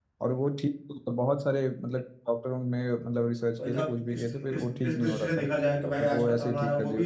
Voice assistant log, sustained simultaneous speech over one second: present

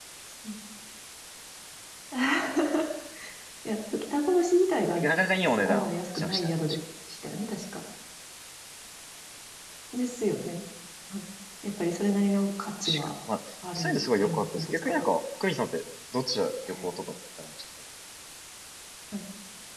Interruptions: present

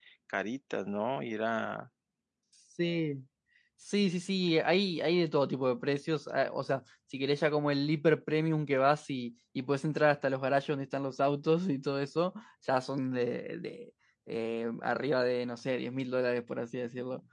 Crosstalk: none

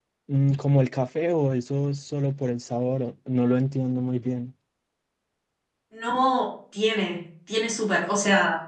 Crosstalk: none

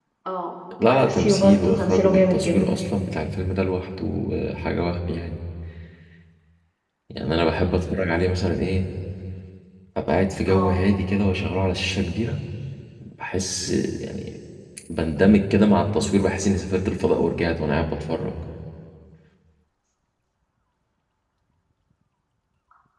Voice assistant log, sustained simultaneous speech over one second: present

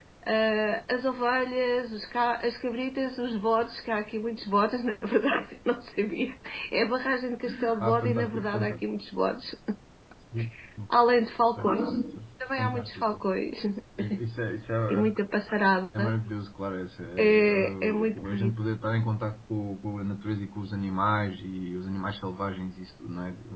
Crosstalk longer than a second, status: present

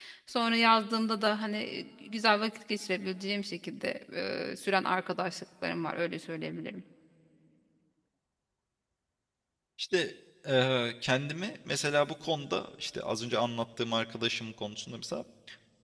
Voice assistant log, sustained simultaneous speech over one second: none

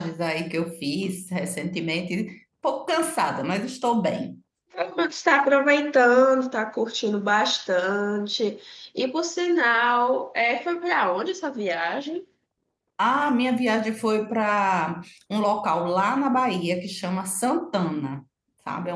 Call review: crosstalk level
none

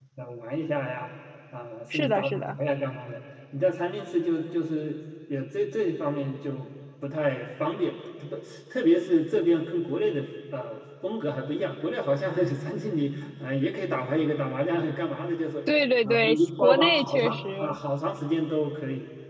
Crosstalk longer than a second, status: present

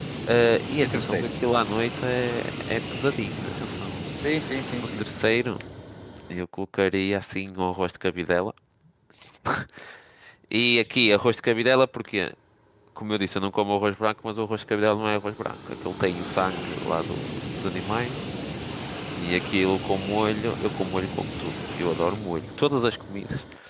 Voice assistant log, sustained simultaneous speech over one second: none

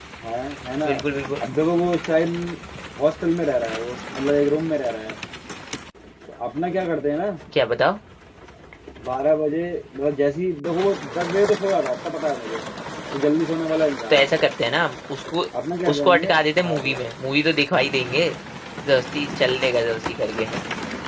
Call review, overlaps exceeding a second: none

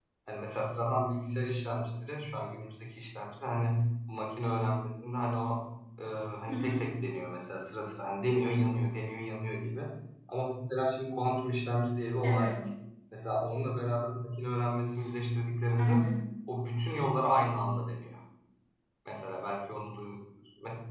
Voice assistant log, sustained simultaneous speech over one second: none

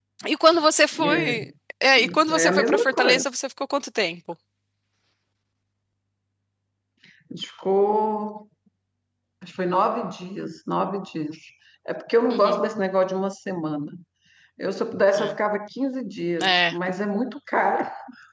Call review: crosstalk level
present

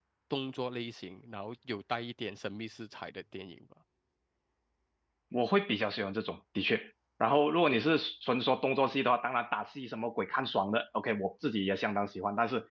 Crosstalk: none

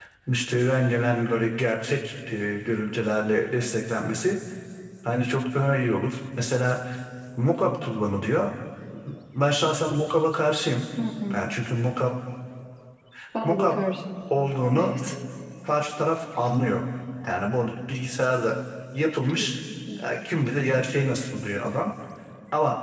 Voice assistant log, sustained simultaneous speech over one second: none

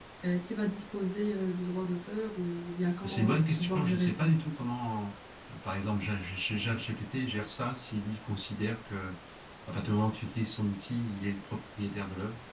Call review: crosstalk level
present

